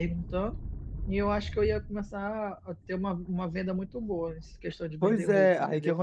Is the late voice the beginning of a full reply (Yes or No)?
Yes